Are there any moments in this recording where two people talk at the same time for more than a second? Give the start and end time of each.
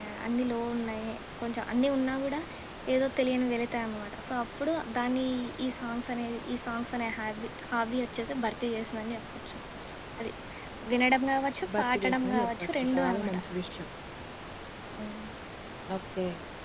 11.8-13.4

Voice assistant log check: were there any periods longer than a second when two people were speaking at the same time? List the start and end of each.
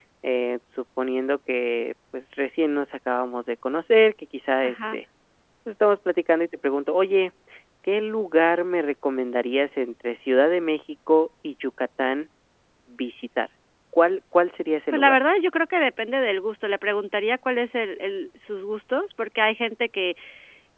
none

